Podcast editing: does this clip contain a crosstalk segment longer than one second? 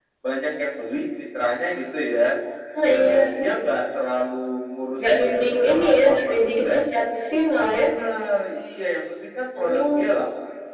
Yes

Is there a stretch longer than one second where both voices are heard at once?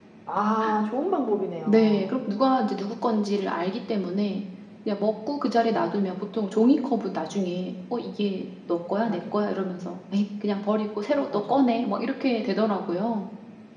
No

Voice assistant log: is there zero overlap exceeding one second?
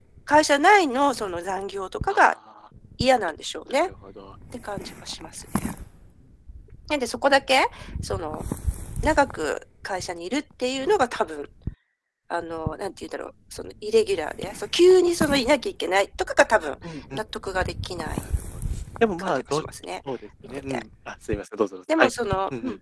Yes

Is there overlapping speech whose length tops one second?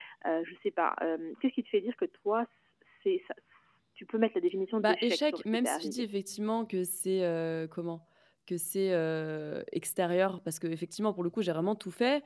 Yes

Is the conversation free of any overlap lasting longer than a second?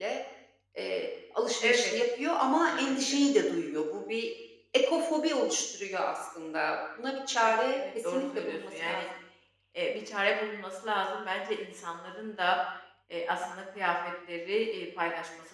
No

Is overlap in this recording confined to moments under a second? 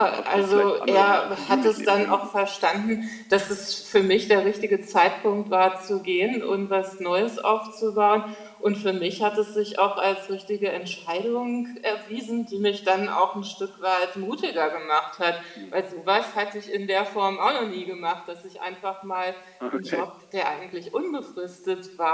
No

